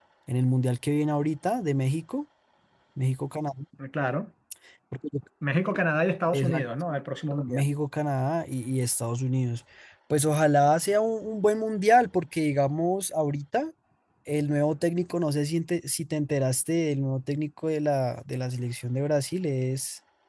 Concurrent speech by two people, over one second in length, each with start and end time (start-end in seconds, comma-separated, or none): none